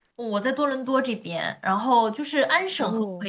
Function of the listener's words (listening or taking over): listening